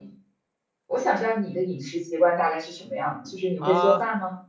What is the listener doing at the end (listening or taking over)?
taking over